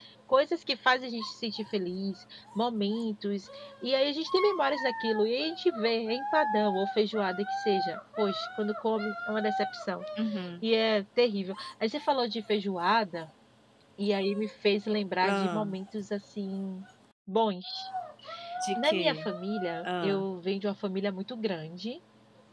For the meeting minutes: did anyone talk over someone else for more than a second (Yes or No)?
No